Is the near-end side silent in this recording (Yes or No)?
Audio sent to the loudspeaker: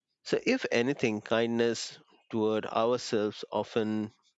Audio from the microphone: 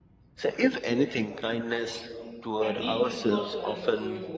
No